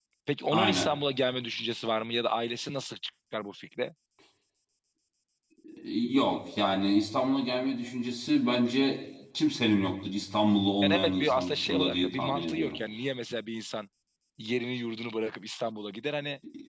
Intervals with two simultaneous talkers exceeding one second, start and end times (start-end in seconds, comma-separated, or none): 10.8-12.8